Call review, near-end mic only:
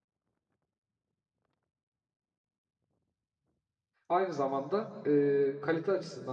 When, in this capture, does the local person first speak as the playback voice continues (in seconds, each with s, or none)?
4.1 s